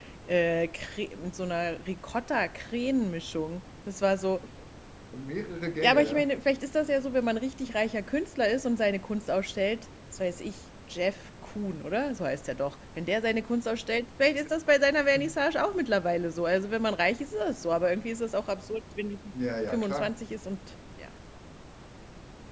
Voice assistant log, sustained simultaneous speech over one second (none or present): none